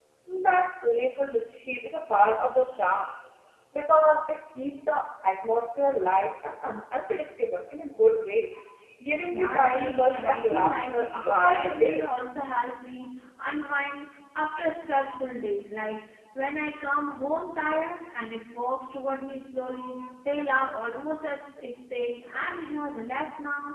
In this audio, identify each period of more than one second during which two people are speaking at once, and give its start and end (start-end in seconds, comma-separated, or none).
9.3-12.0